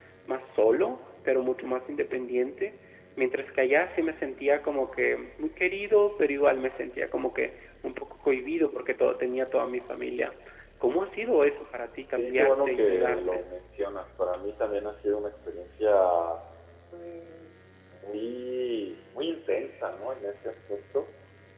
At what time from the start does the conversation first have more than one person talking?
12.2 s

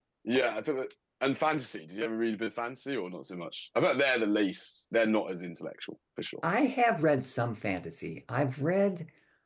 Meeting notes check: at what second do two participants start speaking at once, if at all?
none

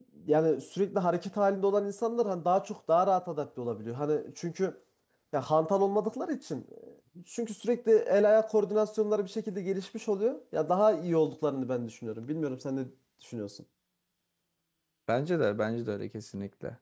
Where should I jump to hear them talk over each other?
none

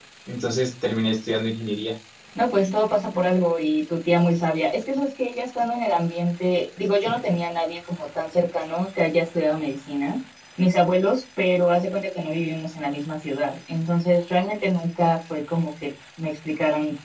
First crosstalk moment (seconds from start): none

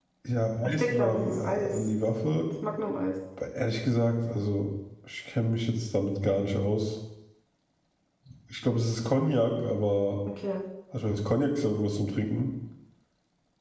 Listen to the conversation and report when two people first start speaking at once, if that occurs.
0.6 s

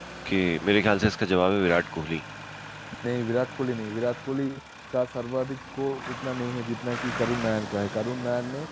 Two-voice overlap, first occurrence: none

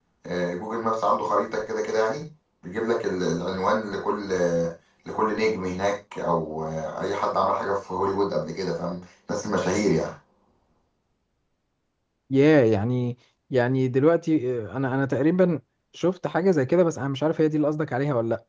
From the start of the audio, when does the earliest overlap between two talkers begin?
none

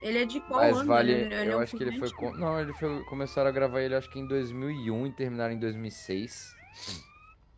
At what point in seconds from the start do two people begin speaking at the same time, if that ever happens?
0.5 s

